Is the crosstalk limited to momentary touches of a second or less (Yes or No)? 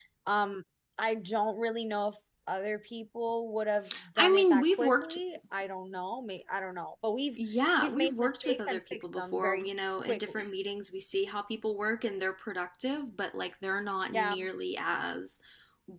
No